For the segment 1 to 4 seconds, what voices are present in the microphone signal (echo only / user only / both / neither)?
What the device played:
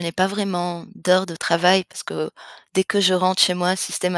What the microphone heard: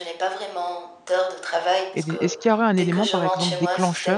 both